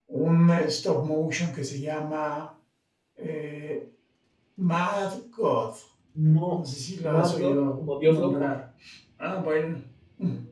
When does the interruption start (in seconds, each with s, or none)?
7.0 s